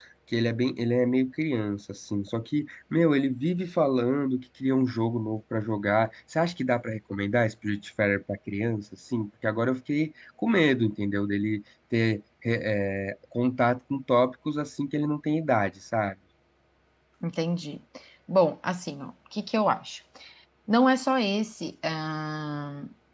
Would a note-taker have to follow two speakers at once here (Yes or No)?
No